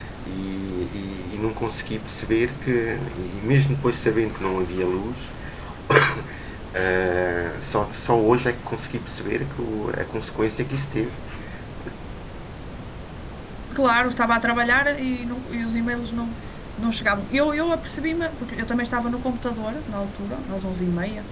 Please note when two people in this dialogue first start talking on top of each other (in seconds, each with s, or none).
none